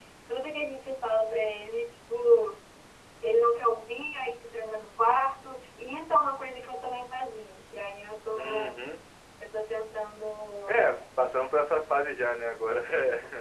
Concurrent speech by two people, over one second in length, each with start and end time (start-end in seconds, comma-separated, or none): none